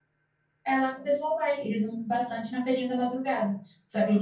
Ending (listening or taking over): listening